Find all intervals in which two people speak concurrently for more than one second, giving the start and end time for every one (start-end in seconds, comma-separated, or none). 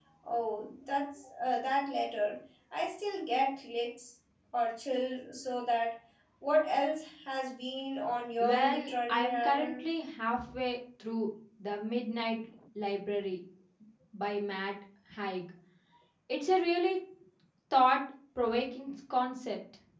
8.4-9.8